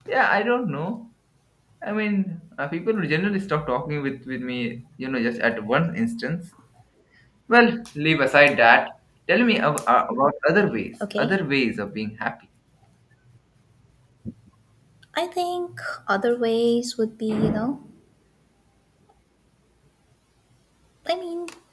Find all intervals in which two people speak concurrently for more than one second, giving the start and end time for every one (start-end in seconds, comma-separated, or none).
none